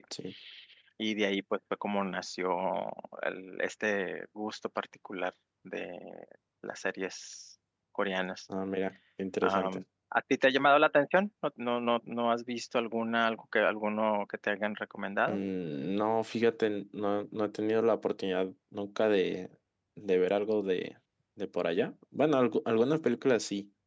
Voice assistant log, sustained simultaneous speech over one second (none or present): none